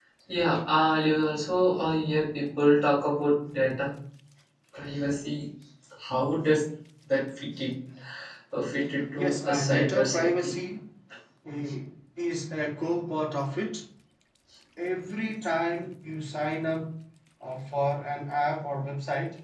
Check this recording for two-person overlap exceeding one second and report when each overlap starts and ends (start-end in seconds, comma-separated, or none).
9.2-10.5